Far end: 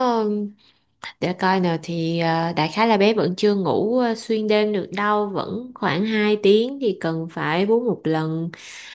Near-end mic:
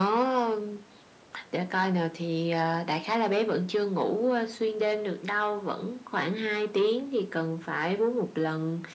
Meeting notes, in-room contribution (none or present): none